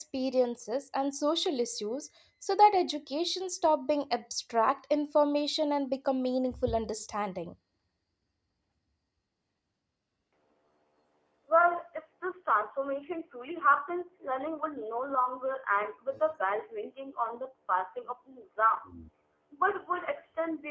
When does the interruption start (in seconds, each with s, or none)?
none